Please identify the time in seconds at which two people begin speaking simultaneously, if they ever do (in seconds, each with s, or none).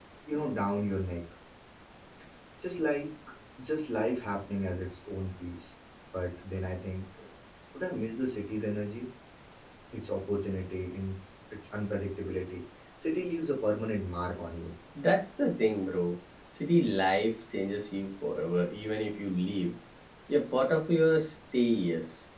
none